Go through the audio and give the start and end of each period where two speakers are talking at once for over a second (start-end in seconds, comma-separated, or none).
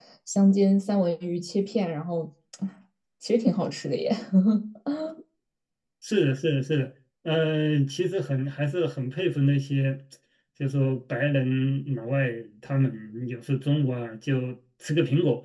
none